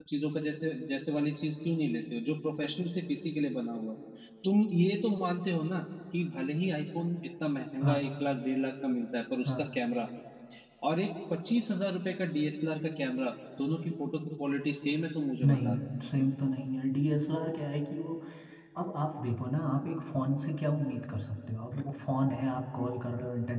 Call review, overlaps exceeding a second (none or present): none